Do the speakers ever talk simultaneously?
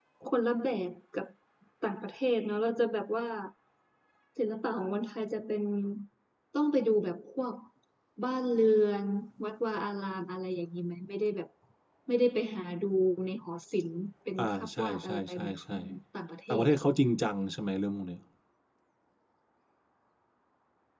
Yes, from 14.4 s

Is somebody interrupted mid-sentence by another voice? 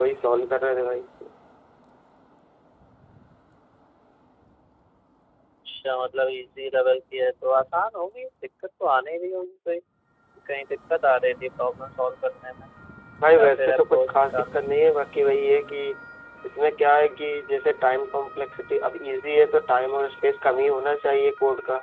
Yes, from 13.4 s

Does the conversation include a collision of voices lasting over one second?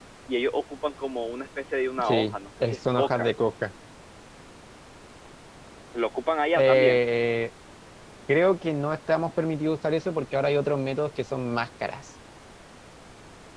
Yes, from 2.0 s

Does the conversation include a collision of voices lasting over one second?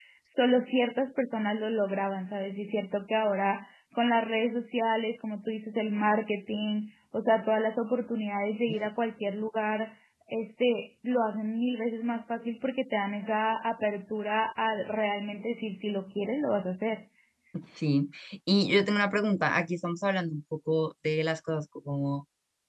No

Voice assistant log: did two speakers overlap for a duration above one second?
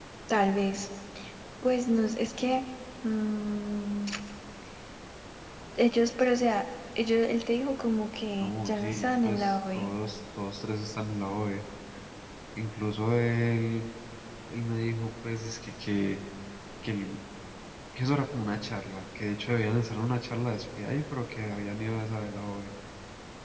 Yes, from 8.4 s

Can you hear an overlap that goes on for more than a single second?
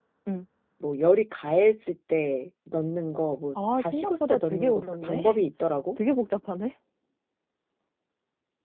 Yes, from 3.5 s

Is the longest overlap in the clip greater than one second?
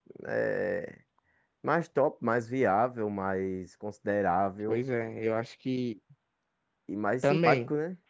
No

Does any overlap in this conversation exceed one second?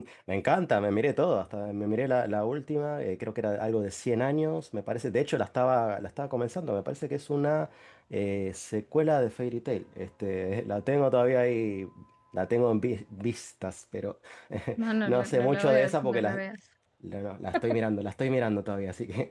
Yes, from 15.1 s

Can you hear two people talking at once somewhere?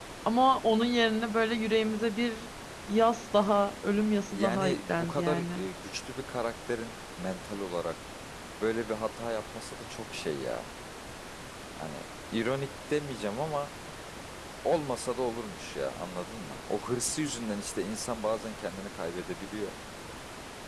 Yes, from 4.2 s

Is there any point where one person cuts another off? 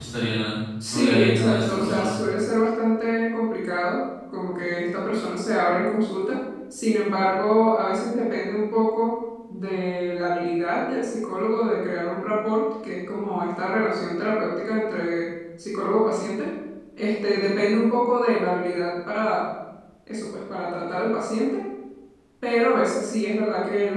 Yes, from 0.9 s

